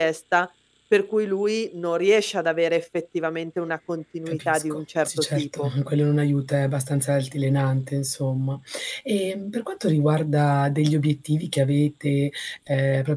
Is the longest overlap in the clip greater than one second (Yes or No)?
Yes